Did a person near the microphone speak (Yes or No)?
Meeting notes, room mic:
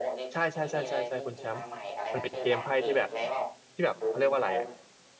Yes